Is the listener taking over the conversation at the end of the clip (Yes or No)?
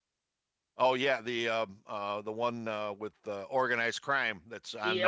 Yes